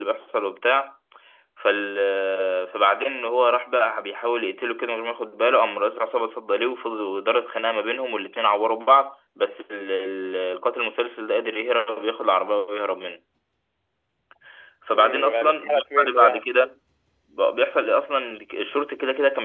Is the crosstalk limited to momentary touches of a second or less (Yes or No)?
No